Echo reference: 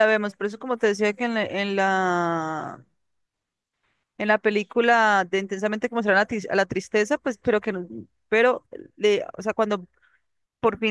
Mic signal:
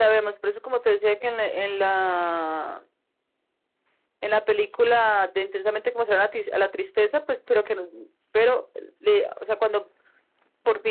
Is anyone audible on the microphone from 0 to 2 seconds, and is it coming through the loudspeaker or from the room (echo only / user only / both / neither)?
echo only